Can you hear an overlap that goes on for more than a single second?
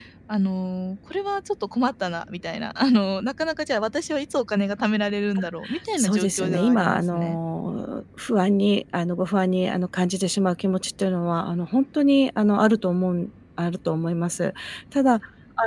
Yes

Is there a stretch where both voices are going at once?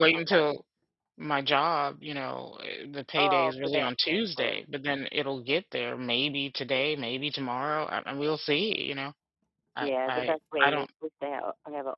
Yes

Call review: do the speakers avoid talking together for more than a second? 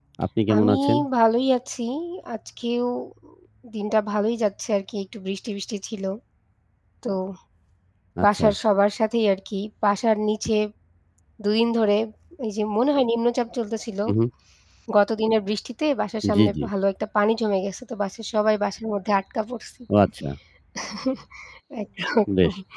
Yes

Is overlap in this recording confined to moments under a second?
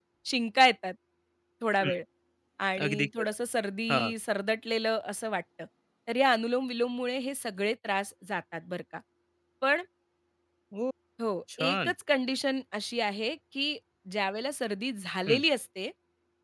Yes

